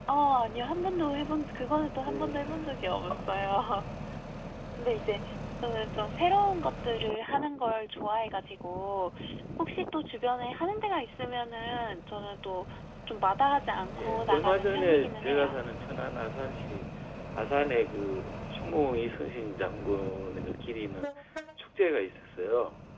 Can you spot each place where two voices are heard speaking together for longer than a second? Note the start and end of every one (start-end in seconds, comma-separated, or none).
14.0-15.6